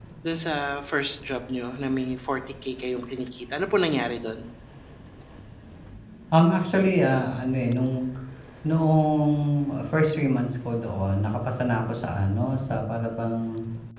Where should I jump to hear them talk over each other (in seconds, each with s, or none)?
none